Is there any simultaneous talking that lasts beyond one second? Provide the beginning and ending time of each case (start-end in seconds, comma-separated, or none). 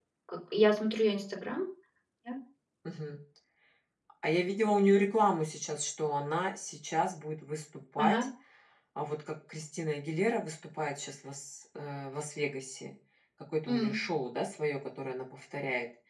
none